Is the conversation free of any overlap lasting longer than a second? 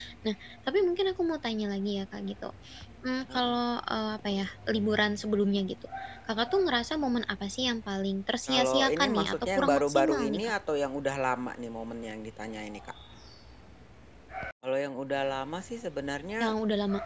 No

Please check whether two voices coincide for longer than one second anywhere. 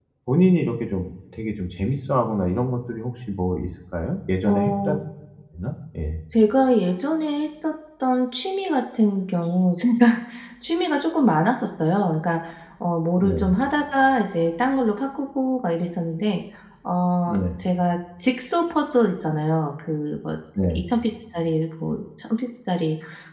No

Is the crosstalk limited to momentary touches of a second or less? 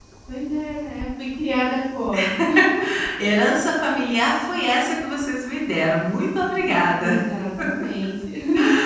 Yes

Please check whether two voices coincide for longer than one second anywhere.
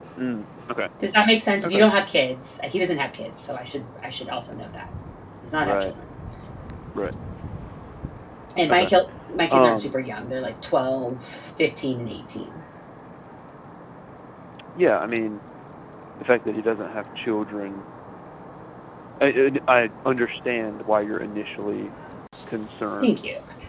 No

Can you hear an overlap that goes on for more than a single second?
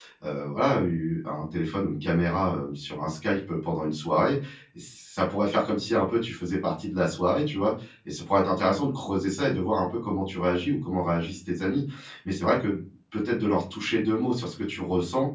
No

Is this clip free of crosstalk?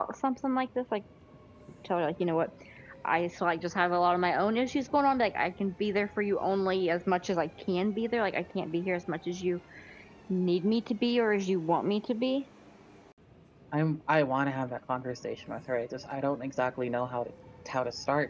Yes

